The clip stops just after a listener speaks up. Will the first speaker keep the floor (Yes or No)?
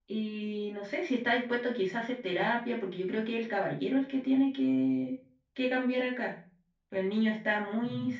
Yes